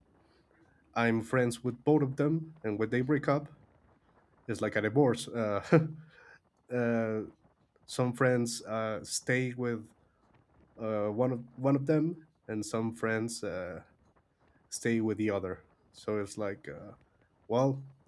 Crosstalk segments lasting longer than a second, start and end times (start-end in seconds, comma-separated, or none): none